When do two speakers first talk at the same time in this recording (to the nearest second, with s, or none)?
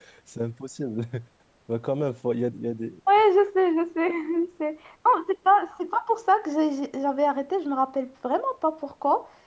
none